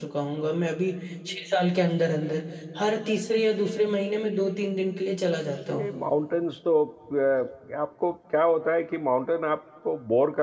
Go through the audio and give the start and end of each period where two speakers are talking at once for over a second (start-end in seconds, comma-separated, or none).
none